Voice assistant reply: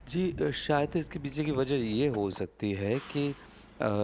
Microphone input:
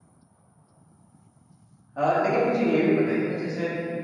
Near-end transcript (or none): अ, लेकिन मुझे ये भी बताइए ना जैसे